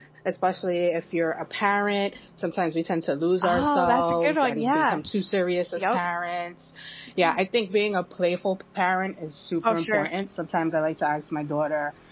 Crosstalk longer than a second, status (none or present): present